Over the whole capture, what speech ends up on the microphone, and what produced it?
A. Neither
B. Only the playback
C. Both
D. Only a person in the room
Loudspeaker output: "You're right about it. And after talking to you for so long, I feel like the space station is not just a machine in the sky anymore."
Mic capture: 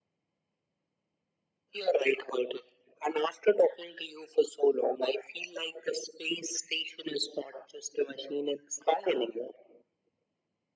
B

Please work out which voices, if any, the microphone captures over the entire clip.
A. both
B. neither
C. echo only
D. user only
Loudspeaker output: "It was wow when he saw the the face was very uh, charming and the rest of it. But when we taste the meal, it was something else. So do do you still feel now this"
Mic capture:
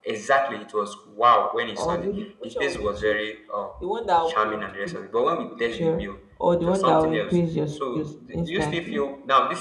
A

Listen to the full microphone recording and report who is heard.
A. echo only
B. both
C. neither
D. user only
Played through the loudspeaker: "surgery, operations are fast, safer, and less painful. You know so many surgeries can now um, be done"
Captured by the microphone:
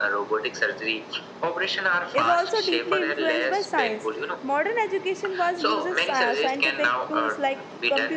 B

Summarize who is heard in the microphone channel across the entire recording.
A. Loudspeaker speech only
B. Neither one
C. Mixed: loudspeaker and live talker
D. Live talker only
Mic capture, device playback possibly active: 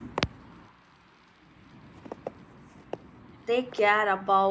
D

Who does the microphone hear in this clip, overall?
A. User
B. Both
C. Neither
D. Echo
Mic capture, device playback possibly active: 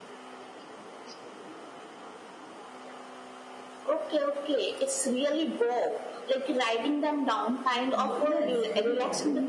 B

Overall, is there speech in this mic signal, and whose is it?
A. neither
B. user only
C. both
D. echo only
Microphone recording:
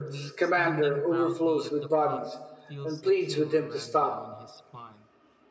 C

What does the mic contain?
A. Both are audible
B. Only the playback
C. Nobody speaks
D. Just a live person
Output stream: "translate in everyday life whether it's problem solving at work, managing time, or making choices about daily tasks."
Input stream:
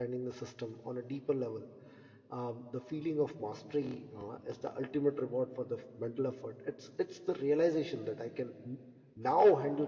D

